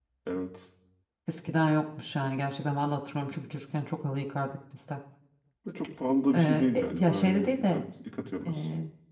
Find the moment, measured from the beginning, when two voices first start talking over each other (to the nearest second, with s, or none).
6 s